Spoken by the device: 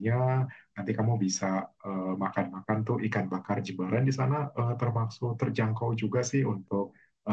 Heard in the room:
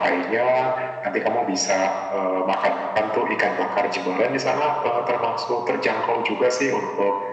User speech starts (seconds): none

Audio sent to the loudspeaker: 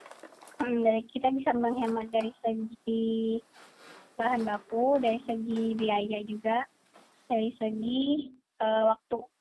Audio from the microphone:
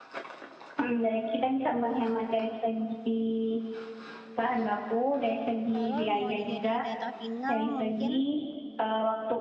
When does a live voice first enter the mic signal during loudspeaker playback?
5.7 s

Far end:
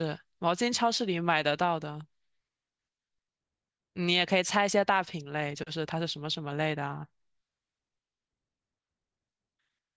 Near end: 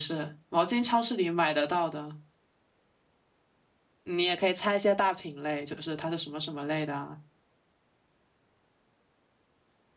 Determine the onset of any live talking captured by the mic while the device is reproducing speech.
none

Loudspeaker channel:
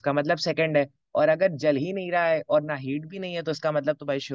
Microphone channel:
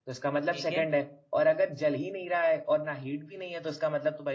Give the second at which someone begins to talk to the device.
0.5 s

